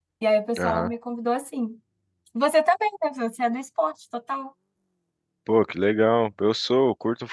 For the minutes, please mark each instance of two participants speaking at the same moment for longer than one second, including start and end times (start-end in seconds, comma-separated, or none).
none